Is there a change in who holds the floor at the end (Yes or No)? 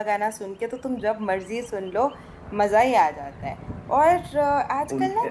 No